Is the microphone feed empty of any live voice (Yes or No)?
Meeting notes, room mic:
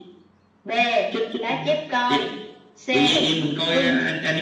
Yes